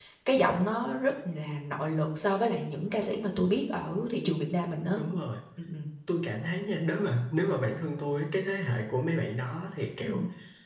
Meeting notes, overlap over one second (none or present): none